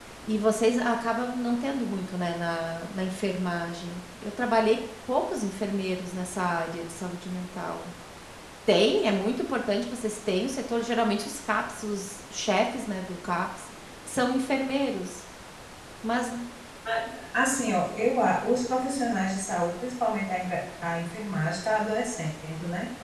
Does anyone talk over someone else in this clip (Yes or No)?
No